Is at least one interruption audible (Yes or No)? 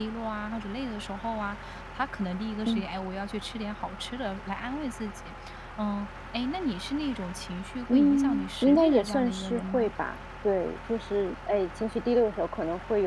Yes